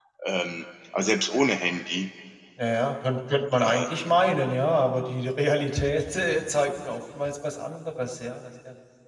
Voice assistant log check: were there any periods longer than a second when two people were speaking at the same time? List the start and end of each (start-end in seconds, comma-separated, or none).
none